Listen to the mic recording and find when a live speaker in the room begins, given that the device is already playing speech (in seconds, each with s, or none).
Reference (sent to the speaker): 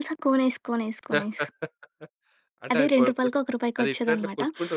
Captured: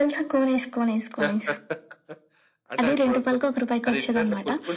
none